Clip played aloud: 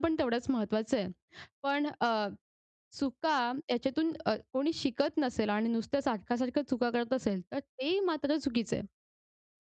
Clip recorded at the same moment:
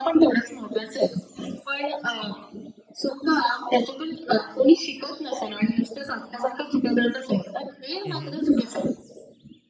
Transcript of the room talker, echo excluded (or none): हं, हं.